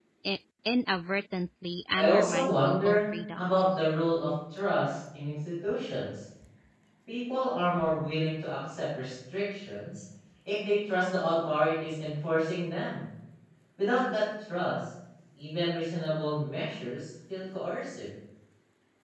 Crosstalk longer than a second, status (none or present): present